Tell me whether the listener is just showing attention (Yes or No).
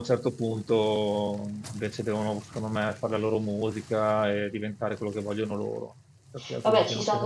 No